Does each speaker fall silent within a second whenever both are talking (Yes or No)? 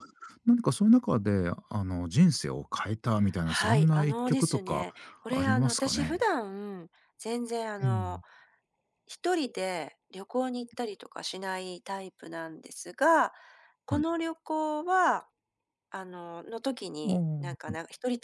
No